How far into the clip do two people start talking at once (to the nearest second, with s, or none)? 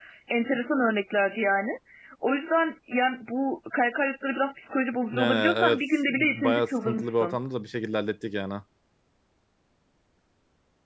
5 s